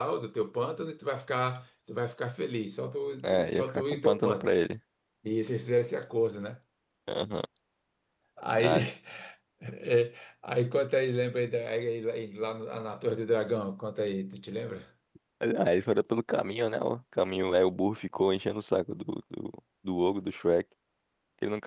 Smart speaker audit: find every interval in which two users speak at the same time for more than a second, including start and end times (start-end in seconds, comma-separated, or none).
3.2-4.5